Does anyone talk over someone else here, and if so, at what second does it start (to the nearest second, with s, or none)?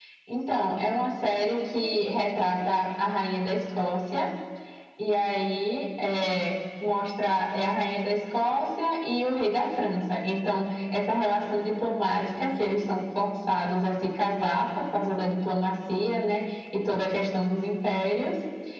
none